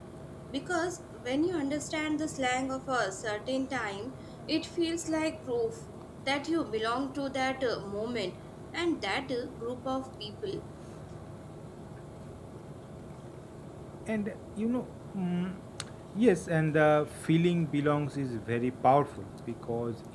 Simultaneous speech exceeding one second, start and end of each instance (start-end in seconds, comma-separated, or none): none